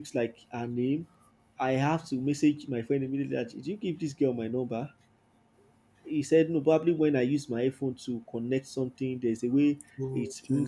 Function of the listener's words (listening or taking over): listening